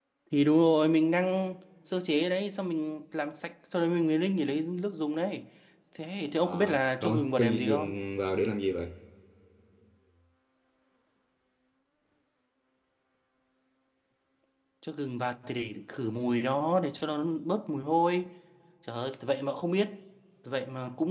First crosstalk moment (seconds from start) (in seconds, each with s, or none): 6.4 s